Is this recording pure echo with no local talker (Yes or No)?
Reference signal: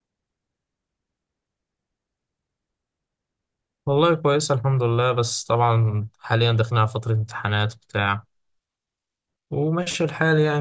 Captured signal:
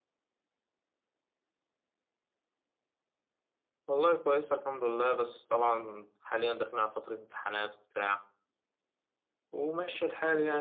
Yes